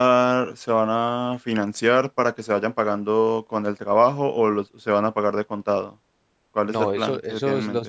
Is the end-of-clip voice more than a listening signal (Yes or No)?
Yes